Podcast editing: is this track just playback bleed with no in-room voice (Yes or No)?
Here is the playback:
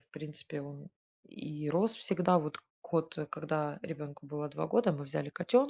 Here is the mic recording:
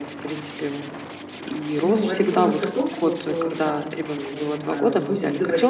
No